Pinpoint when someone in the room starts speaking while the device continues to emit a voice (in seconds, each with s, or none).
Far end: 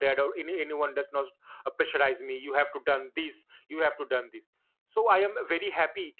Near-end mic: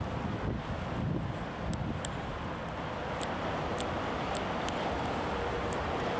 none